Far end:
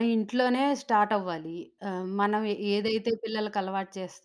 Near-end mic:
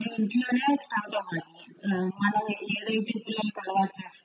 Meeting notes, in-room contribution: none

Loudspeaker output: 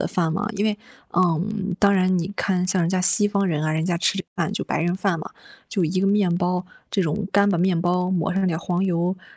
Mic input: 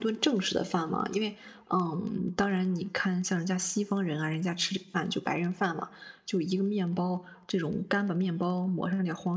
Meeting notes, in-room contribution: none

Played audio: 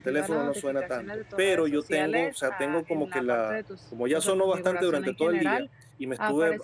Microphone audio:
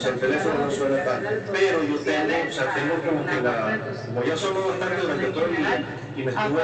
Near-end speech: none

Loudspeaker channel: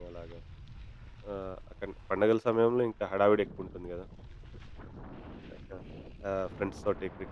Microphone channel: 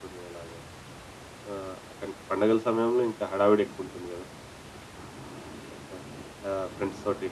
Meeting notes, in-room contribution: none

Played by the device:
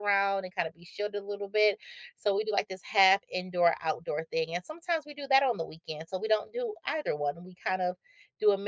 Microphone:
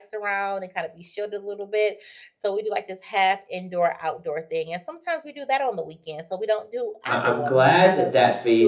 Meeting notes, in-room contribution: present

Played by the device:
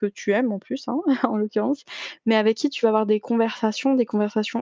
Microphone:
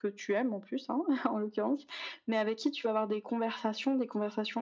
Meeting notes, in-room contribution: none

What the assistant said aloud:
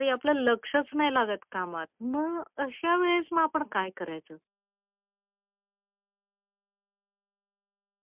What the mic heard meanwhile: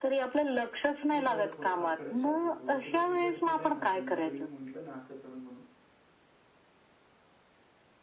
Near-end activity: present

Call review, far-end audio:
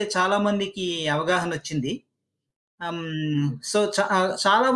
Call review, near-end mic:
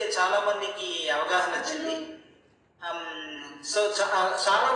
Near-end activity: present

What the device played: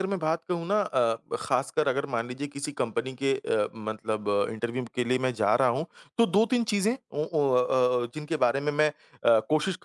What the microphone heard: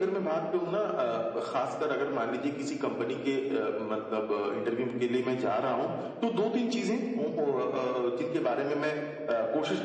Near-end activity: none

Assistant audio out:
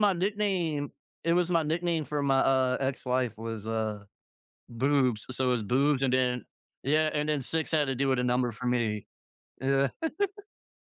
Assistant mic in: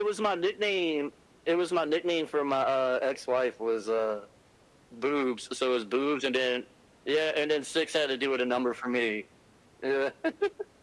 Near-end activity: none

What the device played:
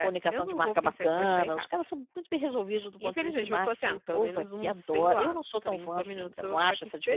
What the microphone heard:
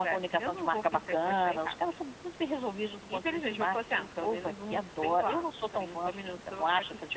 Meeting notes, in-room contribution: none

